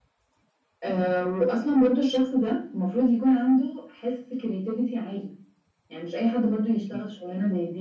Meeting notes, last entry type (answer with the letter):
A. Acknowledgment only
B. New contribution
A